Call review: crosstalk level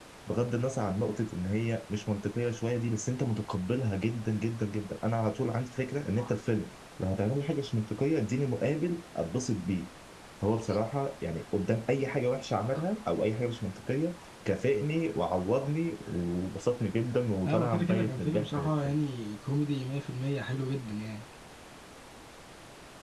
present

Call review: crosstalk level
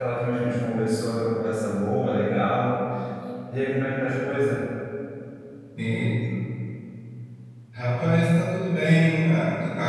none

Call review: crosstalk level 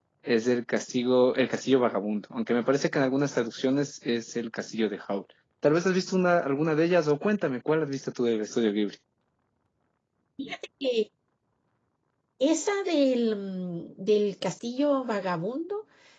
none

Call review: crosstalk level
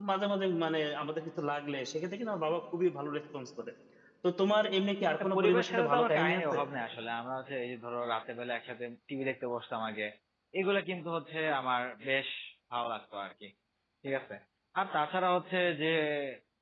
present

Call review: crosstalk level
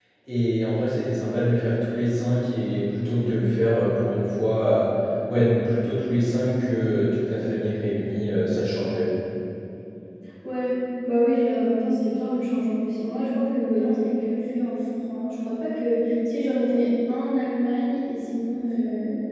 none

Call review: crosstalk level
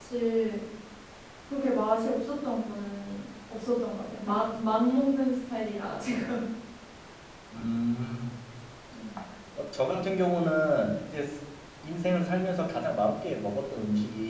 none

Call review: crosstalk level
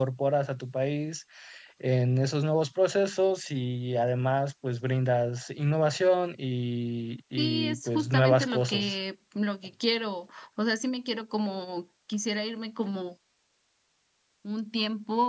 present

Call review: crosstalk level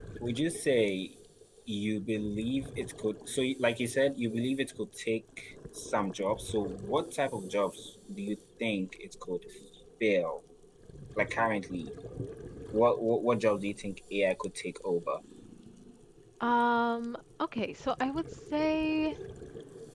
none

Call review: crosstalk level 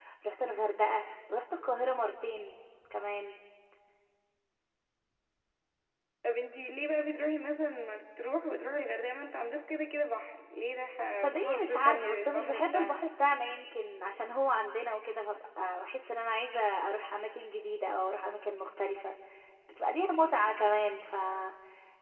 present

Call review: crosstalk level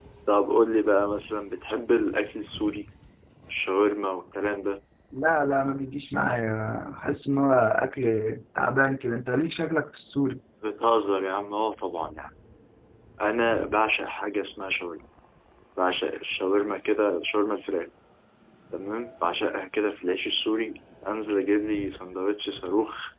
none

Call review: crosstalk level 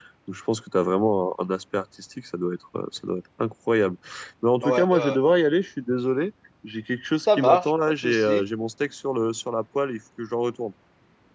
present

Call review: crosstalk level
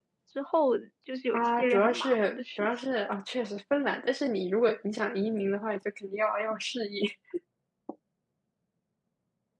present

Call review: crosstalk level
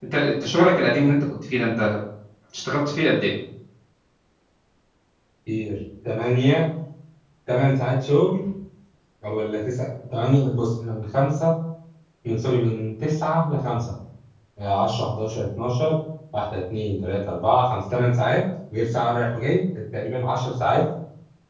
none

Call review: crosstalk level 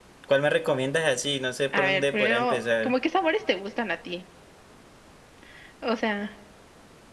present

